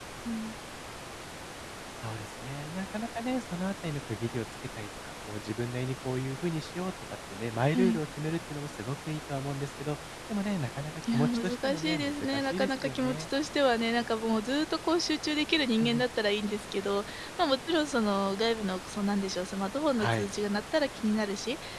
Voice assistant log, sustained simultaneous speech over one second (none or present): present